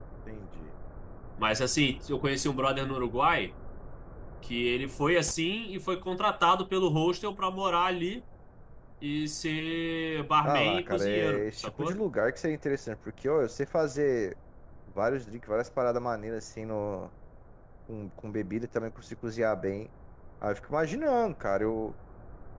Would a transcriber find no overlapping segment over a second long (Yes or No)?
No